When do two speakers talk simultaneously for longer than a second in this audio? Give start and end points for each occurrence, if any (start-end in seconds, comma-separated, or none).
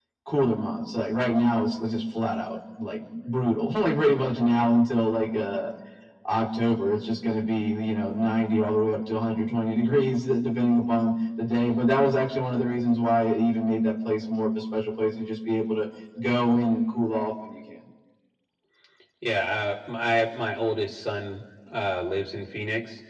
none